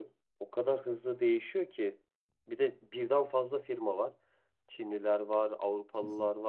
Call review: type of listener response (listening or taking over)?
listening